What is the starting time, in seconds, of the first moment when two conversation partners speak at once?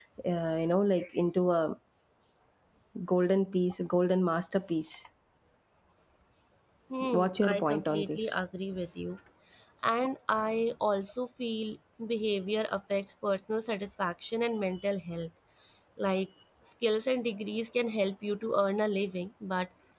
7.1 s

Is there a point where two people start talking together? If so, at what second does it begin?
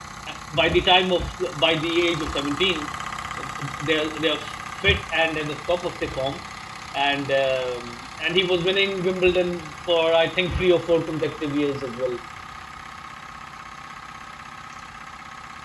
none

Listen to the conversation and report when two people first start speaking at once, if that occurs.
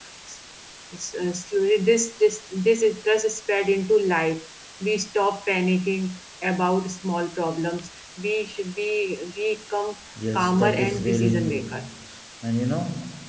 10.3 s

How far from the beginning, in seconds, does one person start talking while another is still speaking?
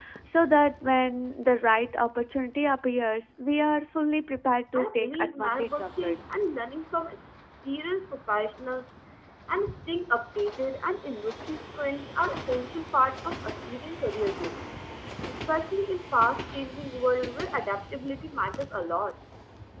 4.8 s

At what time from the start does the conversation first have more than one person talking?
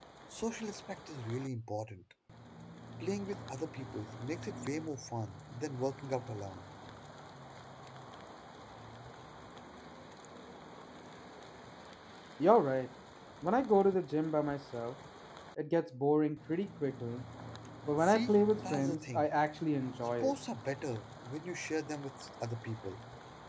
18.0 s

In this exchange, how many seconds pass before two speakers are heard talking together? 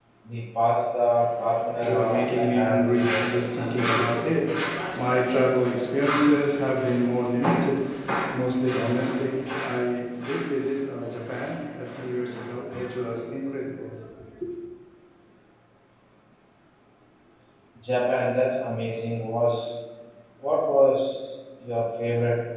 1.6 s

